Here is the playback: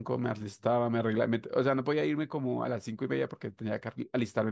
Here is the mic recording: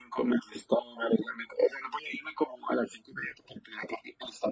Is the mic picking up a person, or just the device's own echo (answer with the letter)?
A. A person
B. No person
B